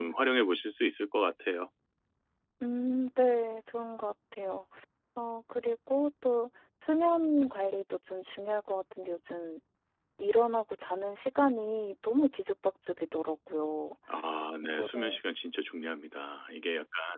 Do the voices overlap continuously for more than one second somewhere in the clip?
No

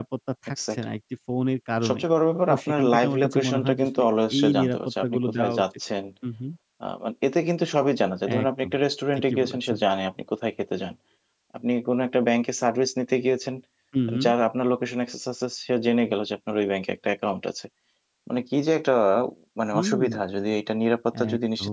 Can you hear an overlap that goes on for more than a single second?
Yes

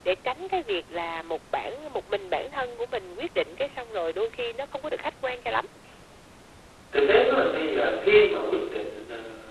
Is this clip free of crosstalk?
Yes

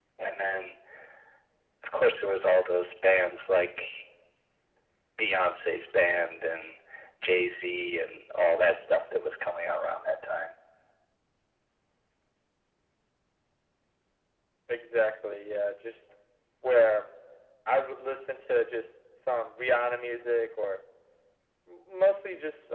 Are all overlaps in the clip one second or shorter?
Yes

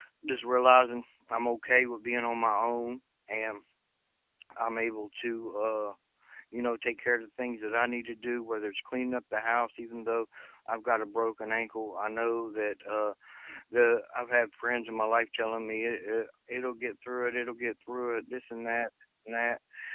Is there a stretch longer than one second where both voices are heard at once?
No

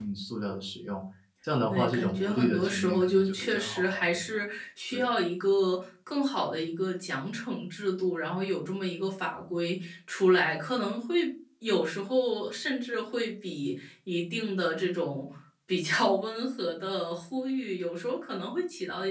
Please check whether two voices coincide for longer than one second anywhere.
Yes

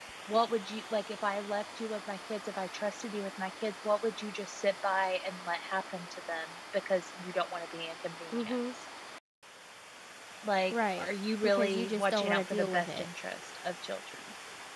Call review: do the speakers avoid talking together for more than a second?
No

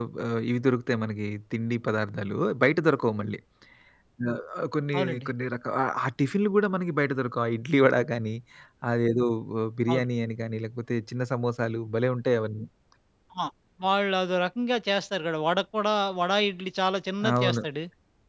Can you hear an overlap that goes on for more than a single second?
No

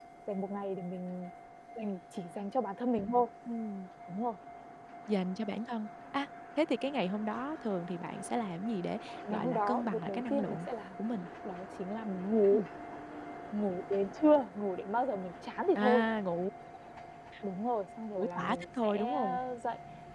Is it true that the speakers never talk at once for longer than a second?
No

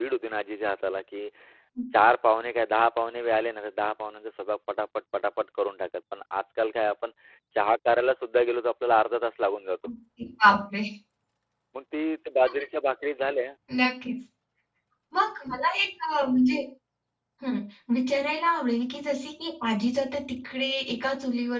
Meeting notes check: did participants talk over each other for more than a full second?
No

